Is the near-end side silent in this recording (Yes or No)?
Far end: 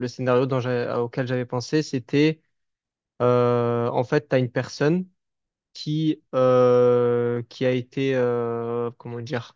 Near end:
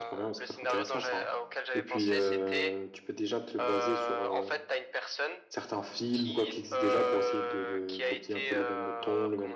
No